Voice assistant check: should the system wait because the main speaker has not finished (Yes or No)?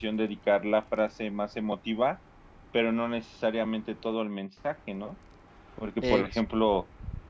Yes